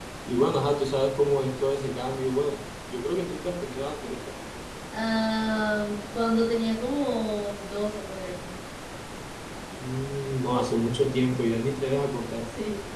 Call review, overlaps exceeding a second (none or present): none